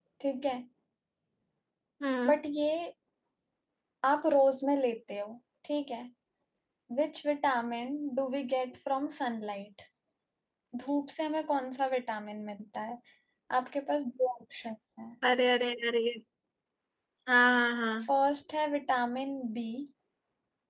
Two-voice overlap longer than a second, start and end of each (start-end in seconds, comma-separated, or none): none